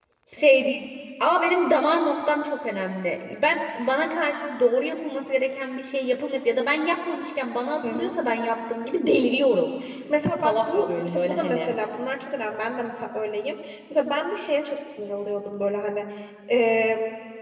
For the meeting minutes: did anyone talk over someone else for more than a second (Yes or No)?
Yes